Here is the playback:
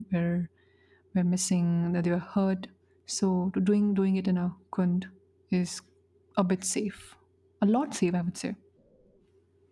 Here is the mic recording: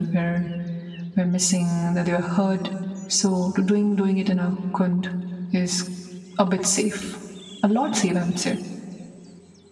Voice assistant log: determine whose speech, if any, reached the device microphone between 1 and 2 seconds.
echo only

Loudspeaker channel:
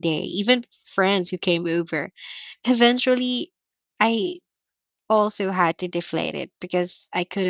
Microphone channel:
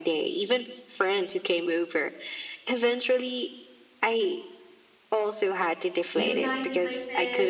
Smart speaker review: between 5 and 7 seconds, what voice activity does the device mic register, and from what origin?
both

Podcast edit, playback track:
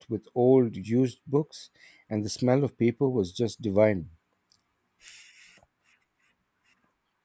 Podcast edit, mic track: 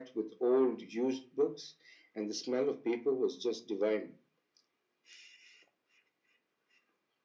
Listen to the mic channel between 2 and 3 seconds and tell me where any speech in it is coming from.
echo only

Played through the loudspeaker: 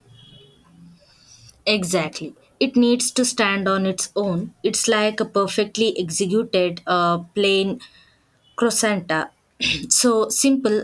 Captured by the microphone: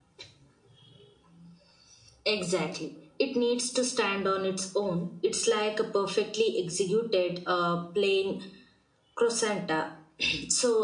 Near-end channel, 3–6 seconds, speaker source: echo only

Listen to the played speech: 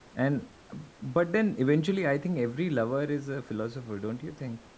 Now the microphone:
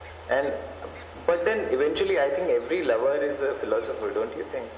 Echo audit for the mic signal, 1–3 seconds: echo only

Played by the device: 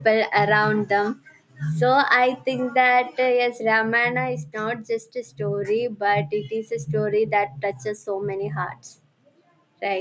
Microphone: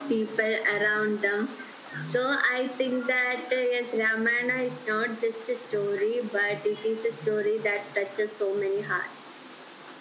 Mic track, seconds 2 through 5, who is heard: echo only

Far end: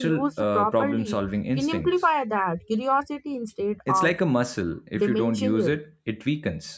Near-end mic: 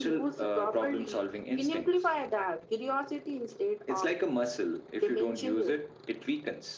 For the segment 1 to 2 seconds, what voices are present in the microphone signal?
echo only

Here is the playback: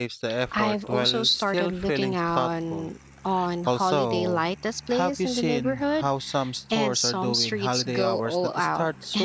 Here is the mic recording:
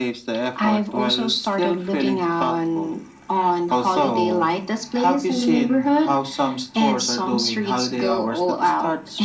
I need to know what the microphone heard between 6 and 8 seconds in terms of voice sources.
echo only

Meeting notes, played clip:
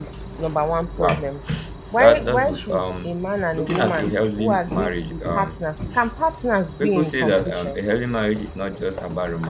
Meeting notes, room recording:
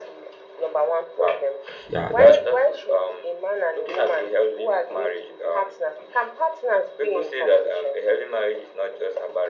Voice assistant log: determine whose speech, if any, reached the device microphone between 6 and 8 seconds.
echo only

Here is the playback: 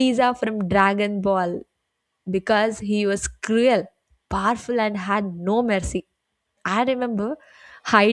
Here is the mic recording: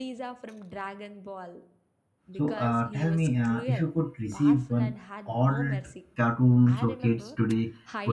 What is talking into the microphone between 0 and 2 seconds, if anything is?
echo only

